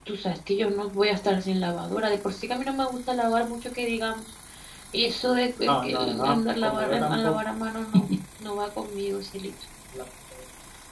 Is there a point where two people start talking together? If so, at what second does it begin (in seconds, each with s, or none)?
5.7 s